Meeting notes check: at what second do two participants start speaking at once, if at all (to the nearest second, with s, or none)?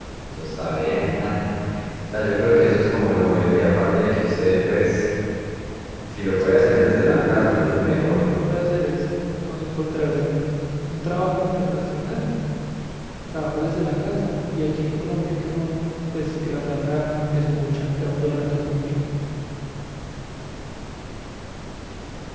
6 s